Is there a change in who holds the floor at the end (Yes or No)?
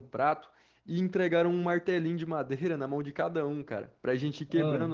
No